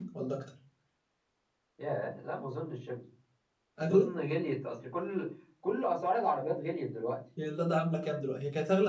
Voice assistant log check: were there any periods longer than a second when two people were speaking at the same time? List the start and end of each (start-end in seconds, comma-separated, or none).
none